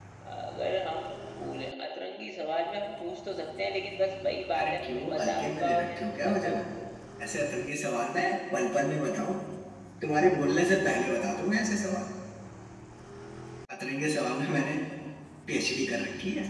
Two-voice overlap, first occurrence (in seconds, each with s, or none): 4.5 s